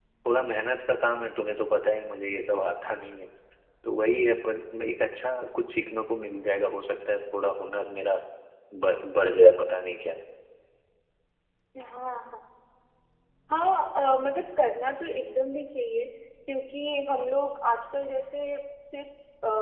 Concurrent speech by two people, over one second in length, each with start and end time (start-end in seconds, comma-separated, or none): none